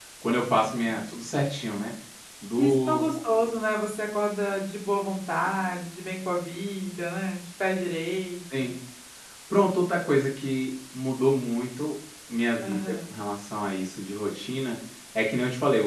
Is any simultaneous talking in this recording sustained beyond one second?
No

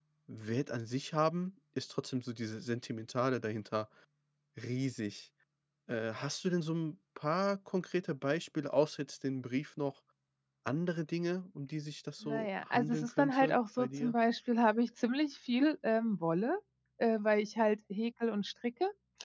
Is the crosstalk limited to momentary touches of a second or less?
No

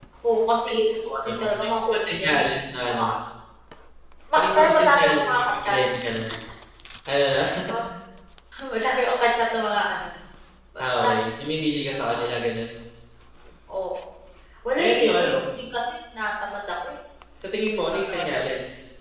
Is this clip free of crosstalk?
No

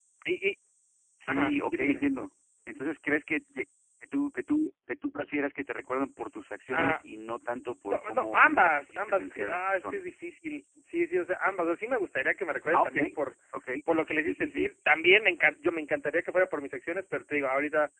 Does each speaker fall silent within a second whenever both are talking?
No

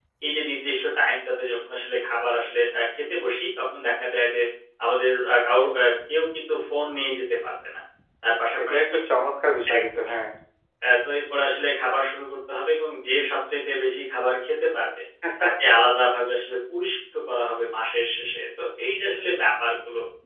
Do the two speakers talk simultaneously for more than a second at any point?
No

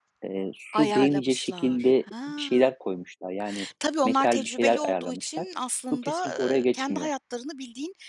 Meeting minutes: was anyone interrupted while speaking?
Yes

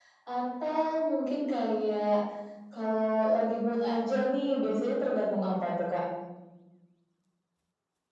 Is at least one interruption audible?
No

